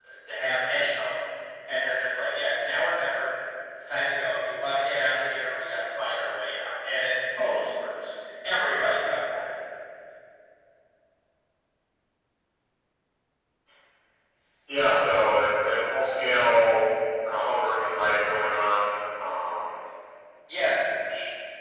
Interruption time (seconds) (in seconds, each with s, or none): none